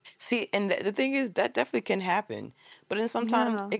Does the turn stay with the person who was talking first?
Yes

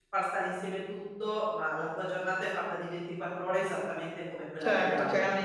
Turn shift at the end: Yes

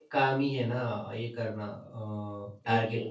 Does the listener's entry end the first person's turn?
Yes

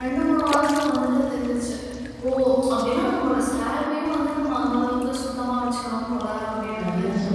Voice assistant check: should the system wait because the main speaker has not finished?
No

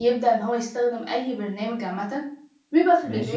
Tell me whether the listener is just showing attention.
Yes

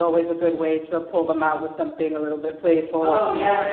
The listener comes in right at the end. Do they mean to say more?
No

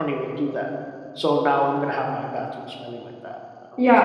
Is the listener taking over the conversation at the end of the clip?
Yes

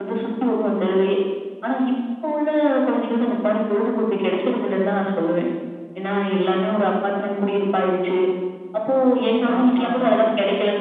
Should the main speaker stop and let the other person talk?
No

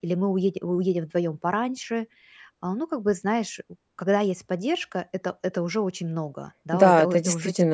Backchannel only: No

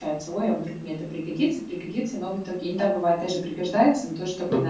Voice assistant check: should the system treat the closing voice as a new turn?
Yes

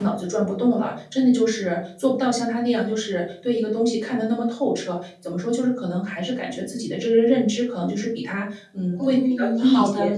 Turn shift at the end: Yes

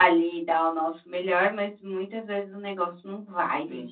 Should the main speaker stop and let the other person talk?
Yes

